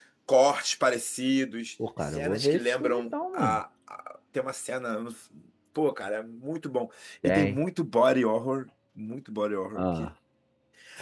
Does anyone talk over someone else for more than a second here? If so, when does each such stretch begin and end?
2.0-3.6

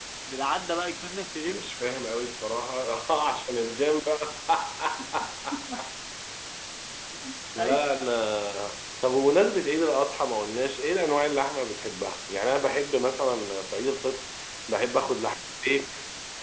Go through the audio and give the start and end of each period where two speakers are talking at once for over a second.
none

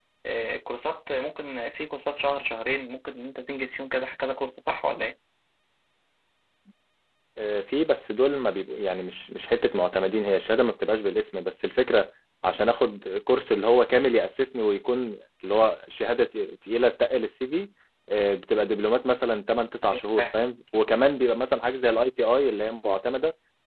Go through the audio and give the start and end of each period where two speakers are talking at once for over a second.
none

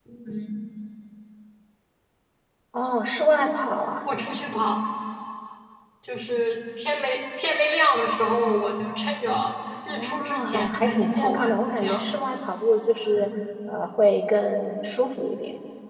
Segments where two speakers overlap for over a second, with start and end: 9.9-12.1

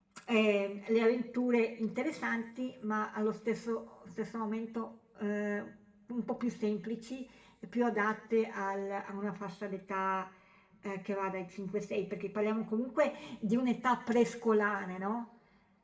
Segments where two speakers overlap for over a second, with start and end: none

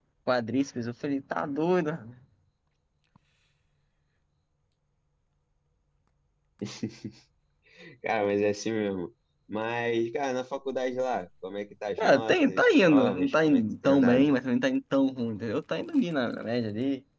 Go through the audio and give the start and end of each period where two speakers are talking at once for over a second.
12.0-14.3

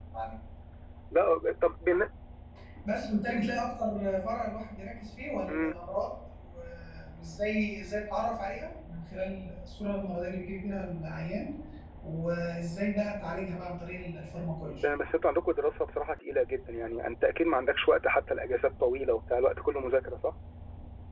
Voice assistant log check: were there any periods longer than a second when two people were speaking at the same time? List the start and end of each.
none

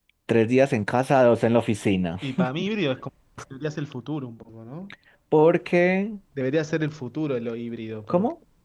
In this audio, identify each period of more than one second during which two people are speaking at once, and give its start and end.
none

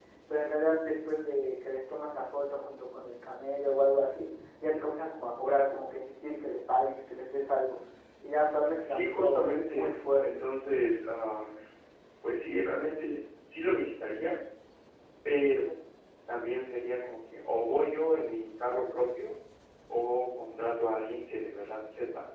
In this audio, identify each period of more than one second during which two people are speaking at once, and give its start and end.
8.8-10.4

